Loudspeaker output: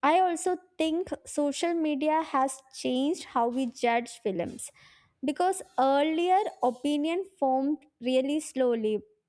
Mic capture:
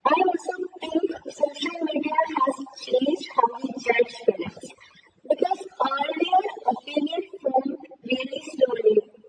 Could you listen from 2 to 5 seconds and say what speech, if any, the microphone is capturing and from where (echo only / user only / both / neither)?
echo only